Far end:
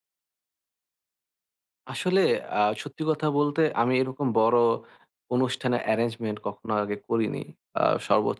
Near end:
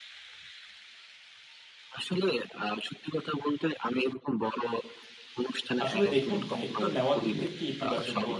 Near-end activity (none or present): present